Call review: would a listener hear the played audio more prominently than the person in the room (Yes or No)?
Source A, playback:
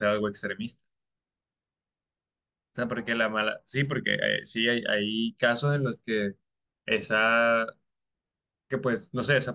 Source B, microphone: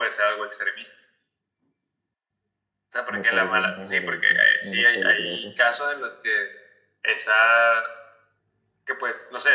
Yes